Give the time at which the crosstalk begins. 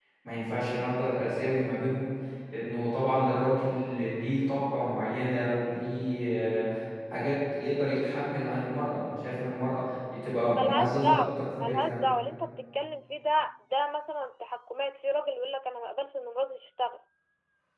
11 s

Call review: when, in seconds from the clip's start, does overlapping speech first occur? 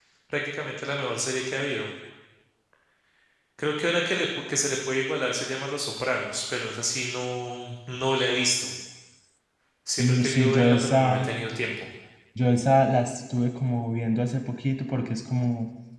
10 s

